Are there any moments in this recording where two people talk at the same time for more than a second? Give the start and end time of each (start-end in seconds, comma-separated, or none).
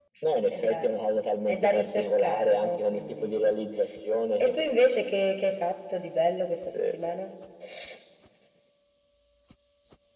1.5-3.6